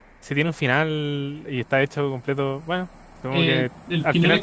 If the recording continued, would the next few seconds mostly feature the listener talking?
Yes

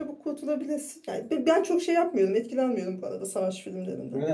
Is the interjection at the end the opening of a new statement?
Yes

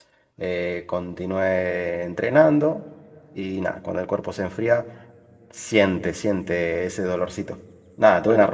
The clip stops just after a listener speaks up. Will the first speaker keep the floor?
Yes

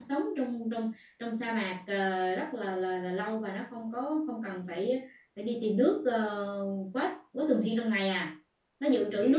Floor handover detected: Yes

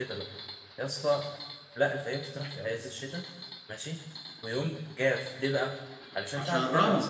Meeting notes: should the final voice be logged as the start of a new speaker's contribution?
No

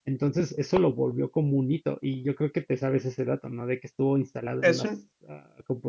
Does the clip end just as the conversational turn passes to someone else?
No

